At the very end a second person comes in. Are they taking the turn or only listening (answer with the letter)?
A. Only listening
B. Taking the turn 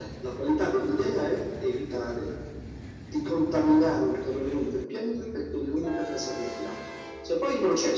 A